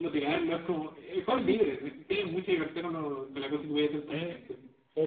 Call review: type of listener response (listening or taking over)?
taking over